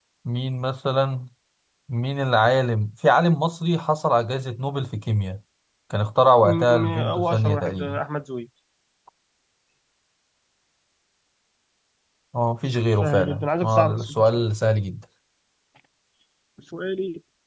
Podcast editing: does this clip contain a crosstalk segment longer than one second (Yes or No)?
Yes